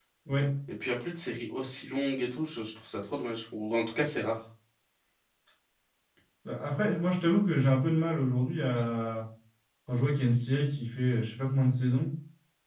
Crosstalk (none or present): none